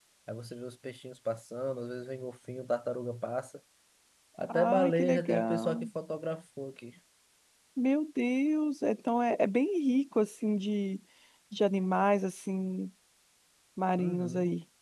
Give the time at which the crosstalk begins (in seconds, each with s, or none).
4.5 s